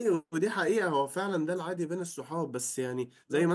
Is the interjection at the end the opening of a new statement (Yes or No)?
No